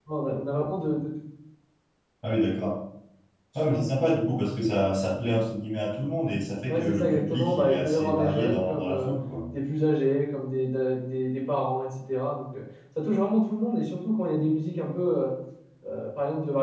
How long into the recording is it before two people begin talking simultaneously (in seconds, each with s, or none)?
6.7 s